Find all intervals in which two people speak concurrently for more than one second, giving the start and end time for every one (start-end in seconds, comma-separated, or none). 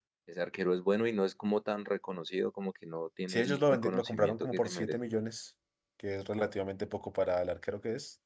3.3-5.0